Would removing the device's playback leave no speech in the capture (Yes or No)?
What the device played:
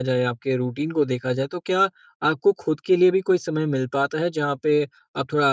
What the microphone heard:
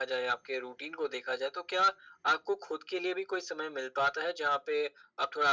Yes